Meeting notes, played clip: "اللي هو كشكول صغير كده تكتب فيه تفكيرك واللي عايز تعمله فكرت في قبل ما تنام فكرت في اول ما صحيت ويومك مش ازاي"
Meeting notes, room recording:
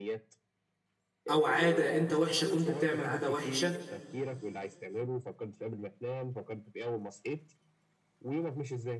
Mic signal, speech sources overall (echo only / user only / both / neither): both